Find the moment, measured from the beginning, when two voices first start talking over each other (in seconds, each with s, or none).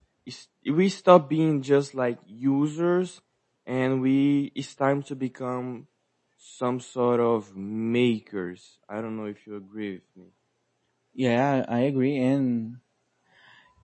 none